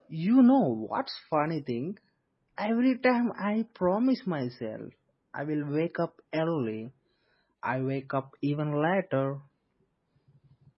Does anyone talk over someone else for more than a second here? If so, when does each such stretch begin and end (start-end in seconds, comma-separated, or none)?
none